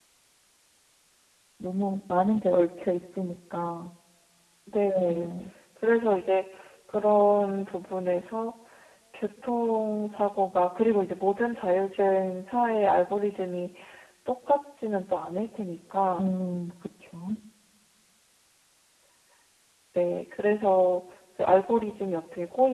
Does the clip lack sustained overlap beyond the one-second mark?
Yes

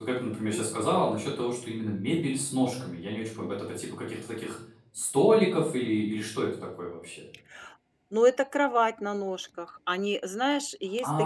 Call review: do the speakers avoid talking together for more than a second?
Yes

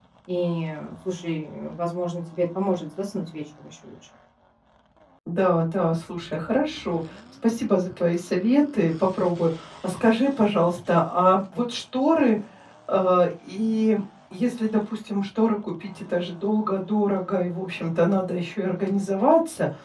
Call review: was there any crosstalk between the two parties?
No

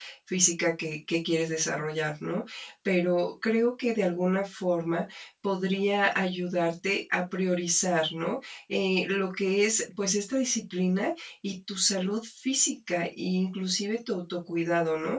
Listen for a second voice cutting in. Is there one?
No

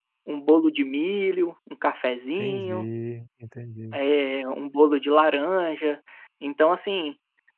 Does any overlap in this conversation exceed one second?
No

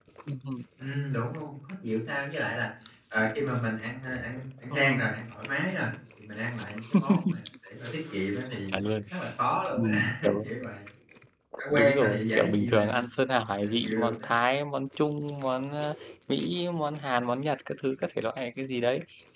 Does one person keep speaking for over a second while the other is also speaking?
Yes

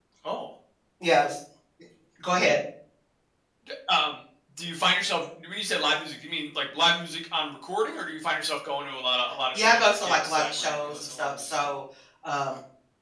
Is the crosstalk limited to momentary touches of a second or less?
No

